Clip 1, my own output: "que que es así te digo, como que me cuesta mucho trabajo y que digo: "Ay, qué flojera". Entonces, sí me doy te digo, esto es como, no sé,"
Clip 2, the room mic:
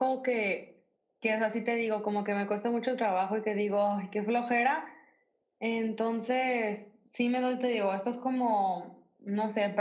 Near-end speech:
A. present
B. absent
B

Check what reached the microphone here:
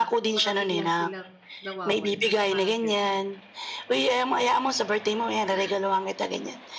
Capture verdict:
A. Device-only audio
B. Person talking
B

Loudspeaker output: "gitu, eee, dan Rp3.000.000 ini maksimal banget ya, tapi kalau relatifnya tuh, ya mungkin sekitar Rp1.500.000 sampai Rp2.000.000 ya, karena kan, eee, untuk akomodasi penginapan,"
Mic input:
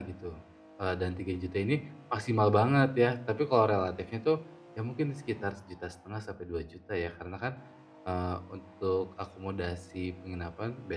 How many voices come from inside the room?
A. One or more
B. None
B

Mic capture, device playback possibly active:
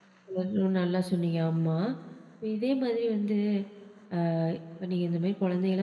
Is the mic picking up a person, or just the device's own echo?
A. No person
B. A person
B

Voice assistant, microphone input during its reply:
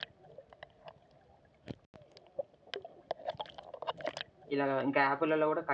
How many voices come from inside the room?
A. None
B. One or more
B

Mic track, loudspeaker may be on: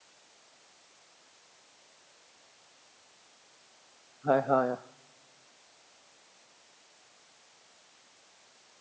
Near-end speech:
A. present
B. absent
A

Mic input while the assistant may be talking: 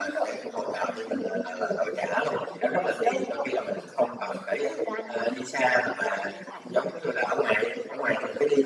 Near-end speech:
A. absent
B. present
A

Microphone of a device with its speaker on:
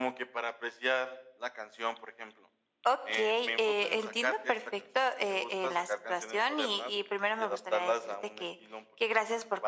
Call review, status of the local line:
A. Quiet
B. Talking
A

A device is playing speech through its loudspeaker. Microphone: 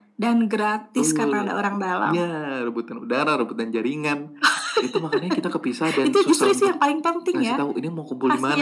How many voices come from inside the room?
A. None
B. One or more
A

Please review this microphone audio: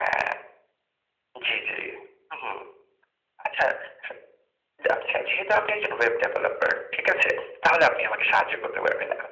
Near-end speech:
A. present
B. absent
B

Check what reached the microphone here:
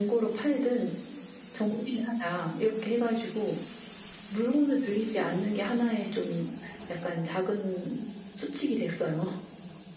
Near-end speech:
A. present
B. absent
B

